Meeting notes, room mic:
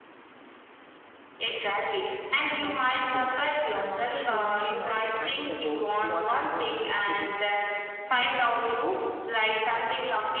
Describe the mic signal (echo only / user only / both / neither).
both